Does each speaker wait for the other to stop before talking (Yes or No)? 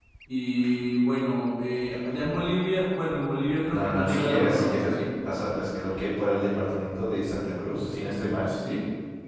No